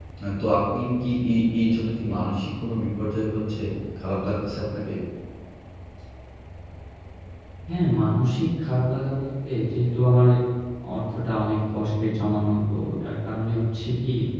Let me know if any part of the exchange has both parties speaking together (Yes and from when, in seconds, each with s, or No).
No